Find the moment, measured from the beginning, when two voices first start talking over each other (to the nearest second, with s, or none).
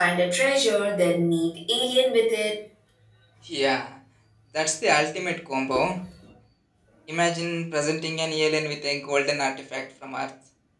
none